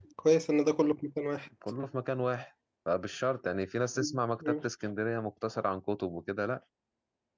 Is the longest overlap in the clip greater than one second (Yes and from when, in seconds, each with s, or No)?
No